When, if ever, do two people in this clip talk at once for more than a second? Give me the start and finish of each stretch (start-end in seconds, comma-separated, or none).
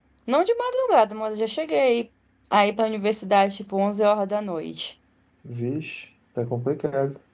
none